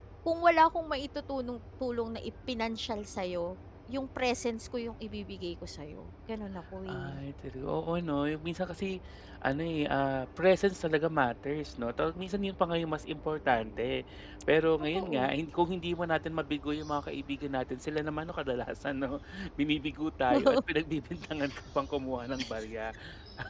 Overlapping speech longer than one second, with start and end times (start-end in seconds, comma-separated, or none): none